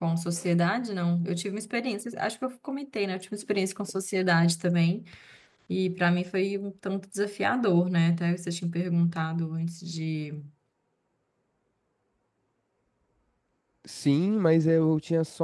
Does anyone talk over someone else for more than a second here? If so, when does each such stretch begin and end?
none

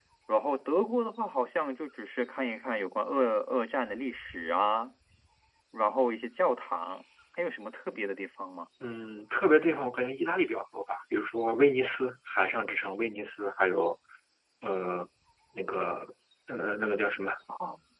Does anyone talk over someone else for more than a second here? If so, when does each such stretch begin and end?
none

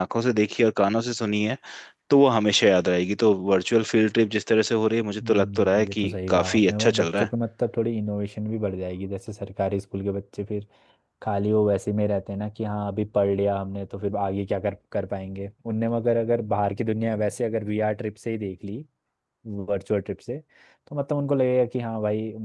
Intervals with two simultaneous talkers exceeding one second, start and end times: 5.2-7.3

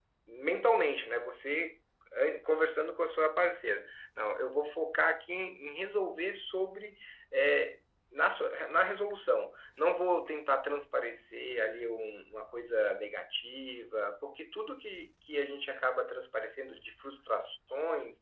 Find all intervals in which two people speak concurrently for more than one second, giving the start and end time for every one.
none

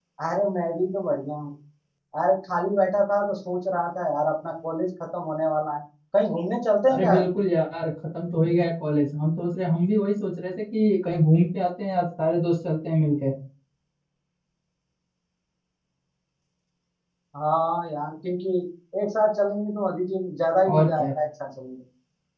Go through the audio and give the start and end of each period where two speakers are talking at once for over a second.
none

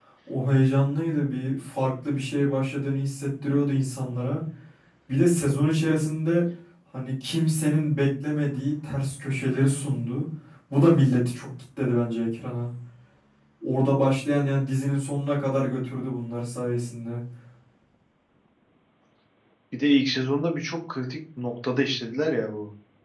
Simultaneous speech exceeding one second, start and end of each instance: none

